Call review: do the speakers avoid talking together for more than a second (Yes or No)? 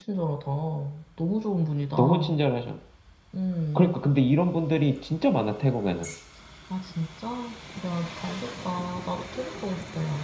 Yes